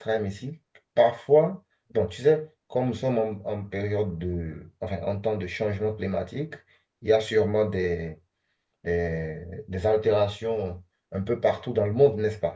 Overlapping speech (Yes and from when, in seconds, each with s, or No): No